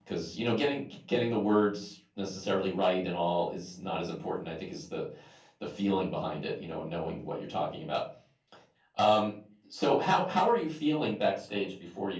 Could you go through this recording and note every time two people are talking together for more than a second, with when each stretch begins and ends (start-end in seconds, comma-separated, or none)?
none